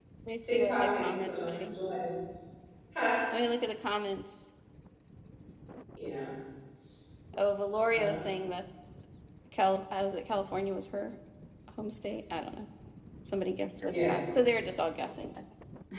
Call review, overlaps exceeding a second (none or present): present